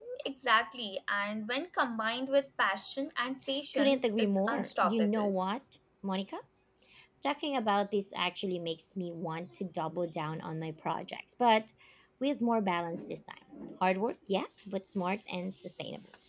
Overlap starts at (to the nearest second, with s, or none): 4 s